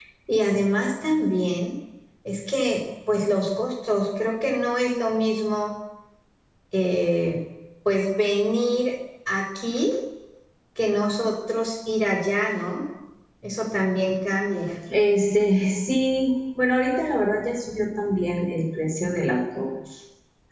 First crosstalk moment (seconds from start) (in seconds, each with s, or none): none